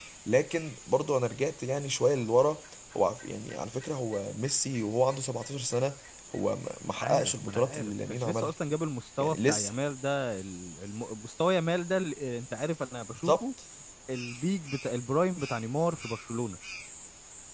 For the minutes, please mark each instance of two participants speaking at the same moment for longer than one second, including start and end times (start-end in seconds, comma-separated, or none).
7.0-8.5